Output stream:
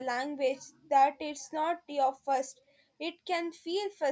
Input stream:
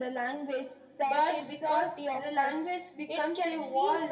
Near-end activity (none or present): present